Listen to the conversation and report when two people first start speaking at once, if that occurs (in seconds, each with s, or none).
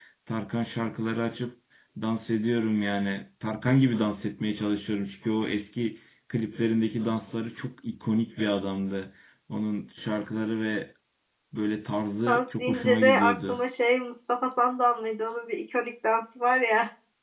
12.3 s